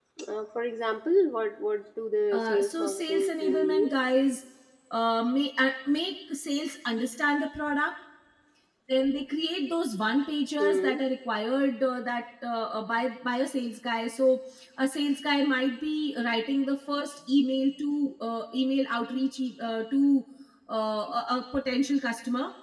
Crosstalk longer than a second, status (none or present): present